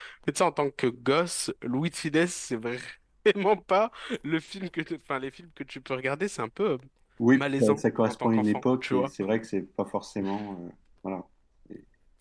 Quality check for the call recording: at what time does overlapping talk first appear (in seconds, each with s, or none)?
7.3 s